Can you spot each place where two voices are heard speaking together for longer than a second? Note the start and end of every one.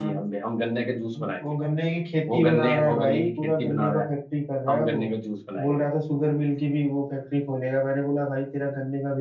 2.3-4.1

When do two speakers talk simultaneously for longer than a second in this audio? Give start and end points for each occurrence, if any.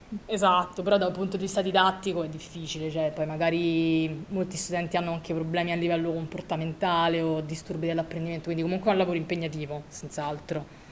none

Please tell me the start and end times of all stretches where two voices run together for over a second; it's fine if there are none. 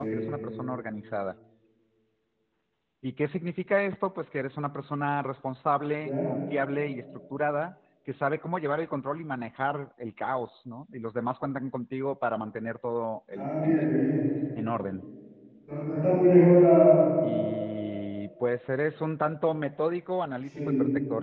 none

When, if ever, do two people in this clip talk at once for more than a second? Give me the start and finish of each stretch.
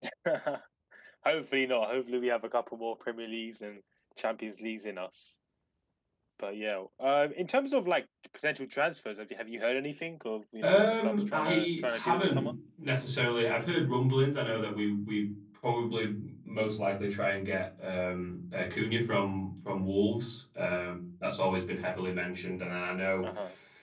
10.6-12.5

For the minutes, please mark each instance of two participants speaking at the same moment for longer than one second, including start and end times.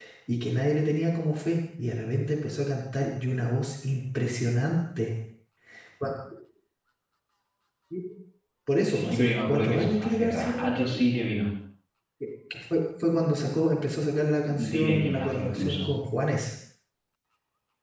8.9-11.0, 14.5-15.9

